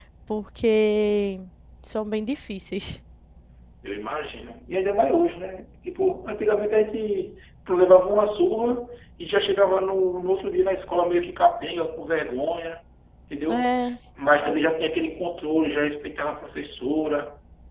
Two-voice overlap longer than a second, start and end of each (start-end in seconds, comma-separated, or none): none